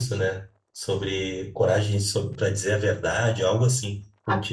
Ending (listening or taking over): taking over